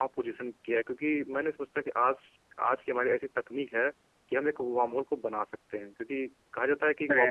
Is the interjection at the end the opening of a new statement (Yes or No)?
No